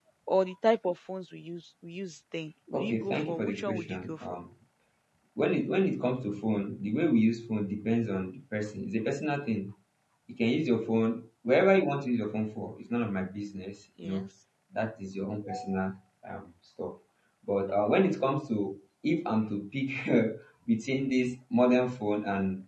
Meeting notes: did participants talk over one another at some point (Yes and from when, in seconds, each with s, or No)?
Yes, from 2.7 s